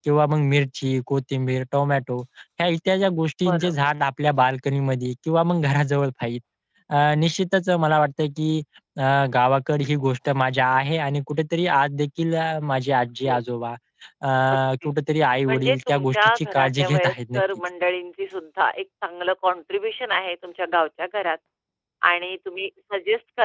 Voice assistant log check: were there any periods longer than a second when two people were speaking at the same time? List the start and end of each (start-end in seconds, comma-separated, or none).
15.5-17.4